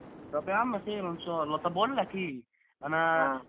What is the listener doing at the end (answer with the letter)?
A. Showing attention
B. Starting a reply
A